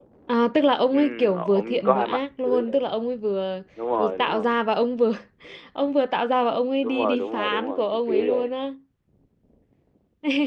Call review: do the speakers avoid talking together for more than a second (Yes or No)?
No